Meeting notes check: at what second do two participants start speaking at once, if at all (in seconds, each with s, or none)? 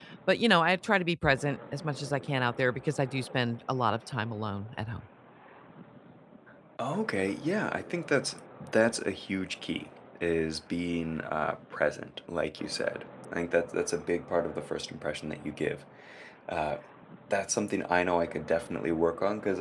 none